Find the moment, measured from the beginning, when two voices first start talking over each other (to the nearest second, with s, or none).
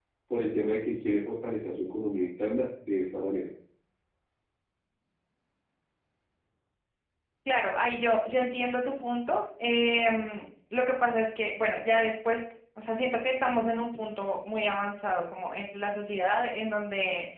none